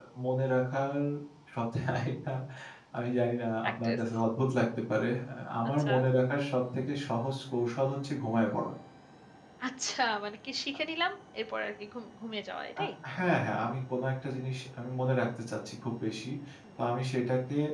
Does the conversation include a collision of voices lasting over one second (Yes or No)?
No